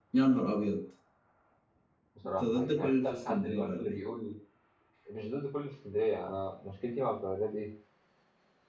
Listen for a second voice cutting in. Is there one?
Yes, from 2.4 s

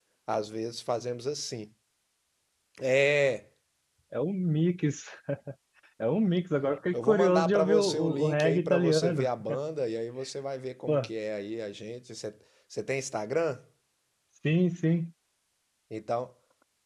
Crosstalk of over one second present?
Yes, from 6.9 s

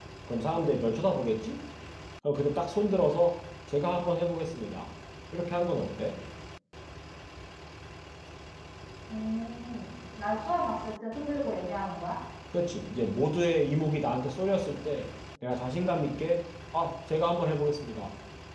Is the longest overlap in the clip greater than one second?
No

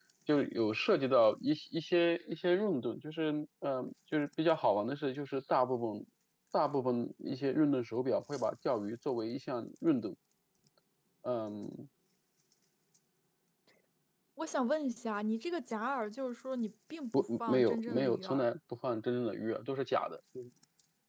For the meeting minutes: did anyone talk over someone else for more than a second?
Yes, from 17.1 s

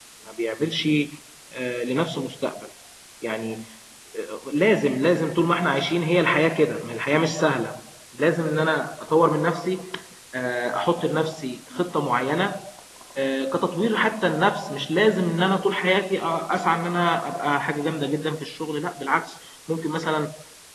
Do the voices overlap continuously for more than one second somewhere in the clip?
No

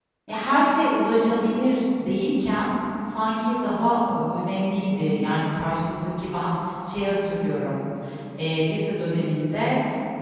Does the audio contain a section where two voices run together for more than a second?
No

